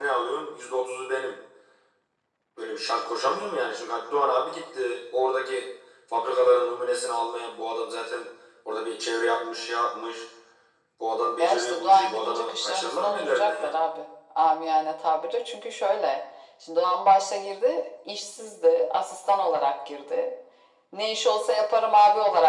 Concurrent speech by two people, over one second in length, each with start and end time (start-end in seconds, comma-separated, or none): 11.4-13.8